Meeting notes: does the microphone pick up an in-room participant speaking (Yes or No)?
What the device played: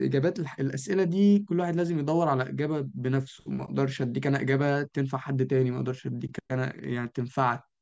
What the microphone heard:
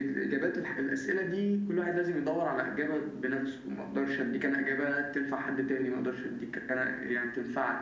No